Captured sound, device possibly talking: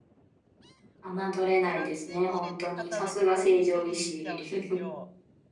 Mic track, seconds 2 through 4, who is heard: both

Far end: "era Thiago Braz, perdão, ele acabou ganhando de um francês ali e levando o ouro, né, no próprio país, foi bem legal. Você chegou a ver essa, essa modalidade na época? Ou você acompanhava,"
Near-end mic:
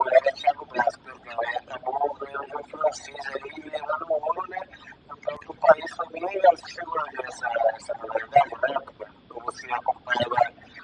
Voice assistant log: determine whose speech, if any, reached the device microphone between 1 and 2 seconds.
echo only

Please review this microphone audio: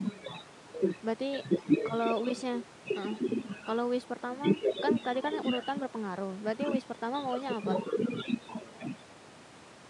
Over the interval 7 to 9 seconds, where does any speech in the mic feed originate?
both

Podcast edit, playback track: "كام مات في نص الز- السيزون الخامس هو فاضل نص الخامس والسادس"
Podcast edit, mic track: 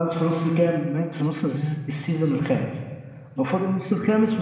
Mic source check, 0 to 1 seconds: echo only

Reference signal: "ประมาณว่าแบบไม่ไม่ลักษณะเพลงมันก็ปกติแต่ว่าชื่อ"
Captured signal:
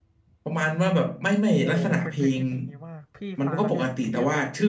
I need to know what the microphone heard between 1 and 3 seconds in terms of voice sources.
both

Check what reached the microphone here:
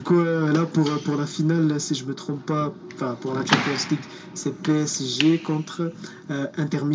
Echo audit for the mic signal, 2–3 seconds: echo only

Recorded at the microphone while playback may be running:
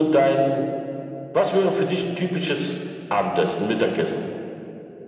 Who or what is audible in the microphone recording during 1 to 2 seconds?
echo only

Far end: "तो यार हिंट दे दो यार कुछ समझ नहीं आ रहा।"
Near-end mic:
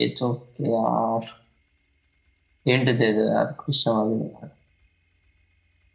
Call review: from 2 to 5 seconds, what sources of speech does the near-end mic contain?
echo only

